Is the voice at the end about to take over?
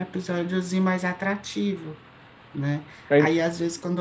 No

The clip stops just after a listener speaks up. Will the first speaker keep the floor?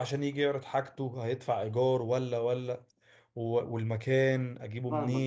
No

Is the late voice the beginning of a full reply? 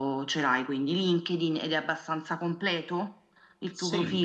Yes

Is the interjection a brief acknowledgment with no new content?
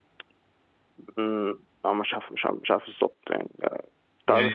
No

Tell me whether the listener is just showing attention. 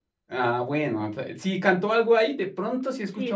No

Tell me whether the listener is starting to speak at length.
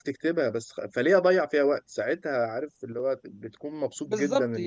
Yes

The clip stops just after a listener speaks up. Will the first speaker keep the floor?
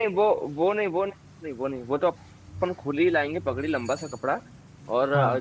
Yes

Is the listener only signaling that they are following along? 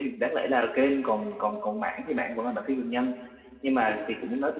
Yes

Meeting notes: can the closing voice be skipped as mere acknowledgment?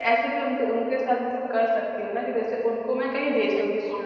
Yes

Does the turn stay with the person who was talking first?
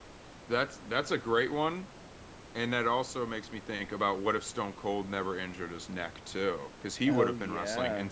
Yes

